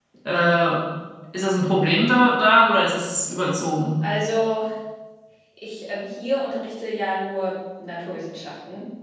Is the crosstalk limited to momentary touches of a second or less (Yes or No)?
Yes